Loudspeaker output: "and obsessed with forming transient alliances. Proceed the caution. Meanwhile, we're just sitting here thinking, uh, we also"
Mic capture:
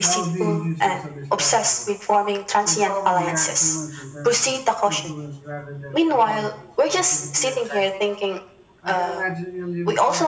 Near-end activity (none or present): present